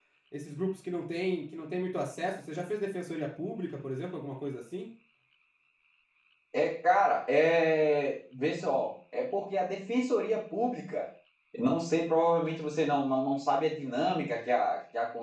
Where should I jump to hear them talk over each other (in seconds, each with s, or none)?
none